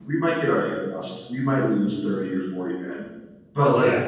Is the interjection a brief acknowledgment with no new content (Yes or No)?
Yes